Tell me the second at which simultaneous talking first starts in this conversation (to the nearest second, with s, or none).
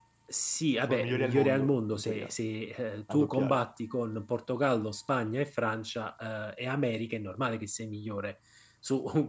1 s